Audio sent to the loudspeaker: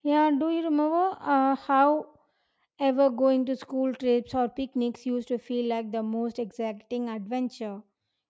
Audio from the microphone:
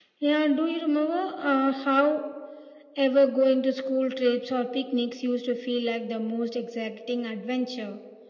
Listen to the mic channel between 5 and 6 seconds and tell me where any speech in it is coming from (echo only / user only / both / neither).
echo only